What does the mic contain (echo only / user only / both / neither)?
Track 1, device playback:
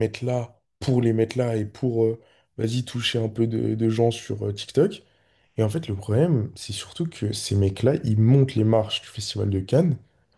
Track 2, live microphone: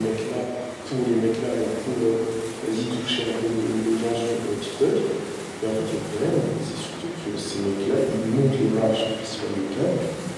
echo only